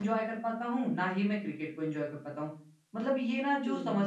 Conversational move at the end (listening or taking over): listening